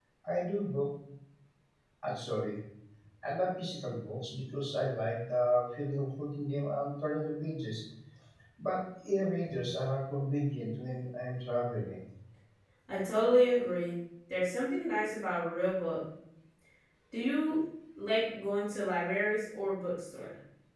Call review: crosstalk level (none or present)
none